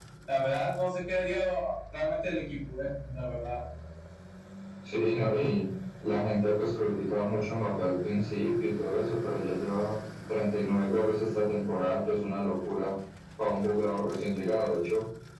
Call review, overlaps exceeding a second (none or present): none